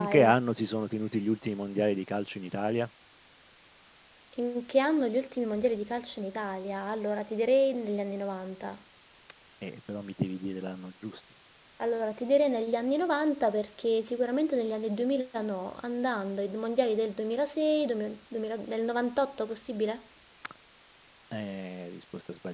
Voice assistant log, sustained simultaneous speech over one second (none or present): none